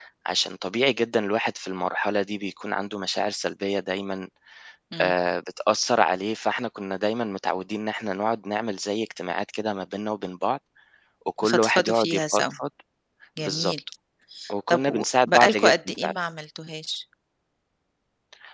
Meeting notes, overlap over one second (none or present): present